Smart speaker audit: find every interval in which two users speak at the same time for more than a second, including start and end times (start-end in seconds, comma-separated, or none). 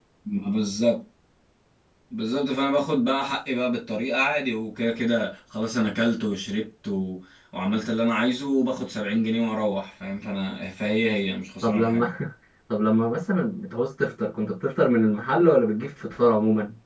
none